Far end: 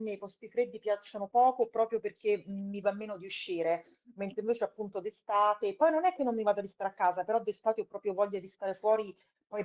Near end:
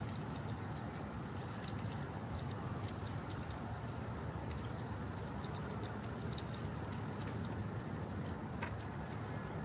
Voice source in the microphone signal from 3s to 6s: neither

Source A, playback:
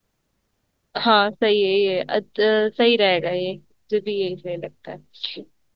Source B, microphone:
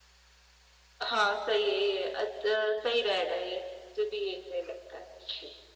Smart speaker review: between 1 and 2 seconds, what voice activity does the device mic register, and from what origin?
echo only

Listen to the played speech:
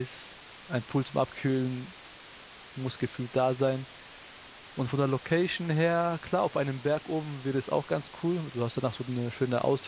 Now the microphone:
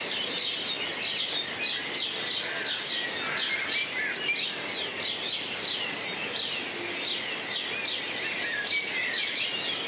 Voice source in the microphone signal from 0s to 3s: neither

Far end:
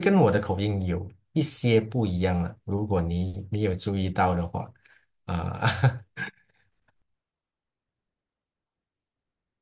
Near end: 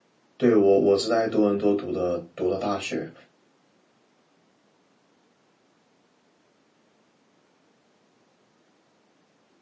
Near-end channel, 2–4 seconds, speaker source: user only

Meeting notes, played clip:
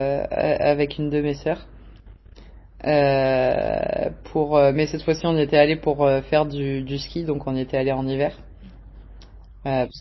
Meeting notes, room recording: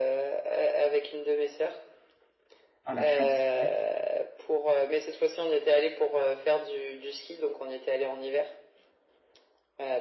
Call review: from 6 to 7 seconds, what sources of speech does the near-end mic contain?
echo only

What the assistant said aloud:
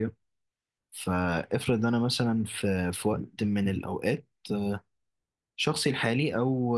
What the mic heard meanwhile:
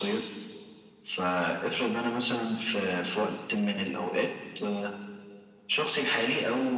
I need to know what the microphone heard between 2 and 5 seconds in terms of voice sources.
echo only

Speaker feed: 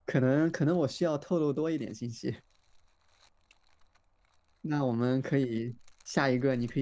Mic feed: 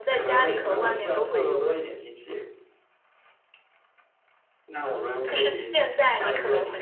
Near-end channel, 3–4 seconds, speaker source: neither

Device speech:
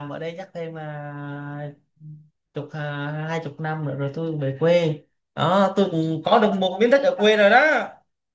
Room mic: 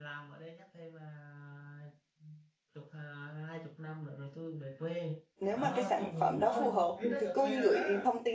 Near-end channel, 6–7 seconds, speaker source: both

